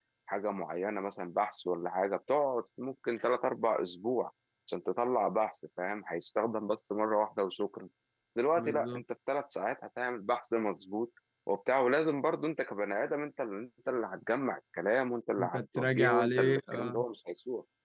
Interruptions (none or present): present